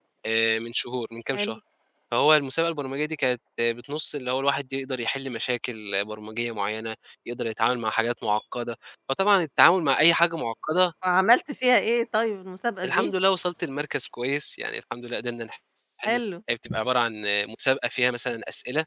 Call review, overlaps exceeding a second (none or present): none